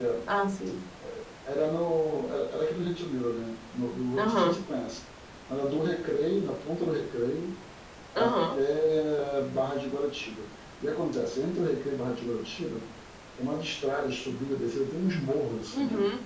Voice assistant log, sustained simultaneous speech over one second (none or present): none